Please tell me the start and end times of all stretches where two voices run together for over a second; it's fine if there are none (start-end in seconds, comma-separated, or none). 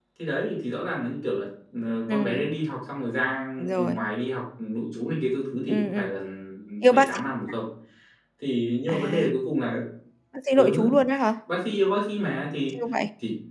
none